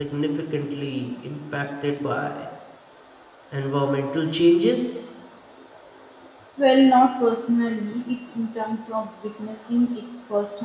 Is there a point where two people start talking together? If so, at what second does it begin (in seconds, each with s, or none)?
none